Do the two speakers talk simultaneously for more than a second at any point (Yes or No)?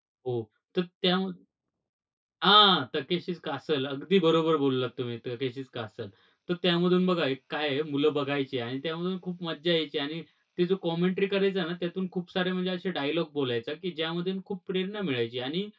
No